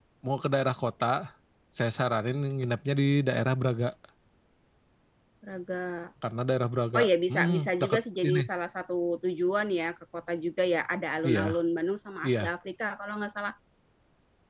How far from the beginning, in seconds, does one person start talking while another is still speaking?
7 s

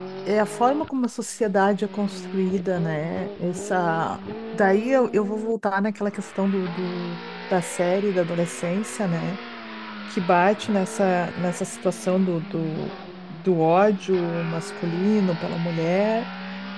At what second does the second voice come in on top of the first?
none

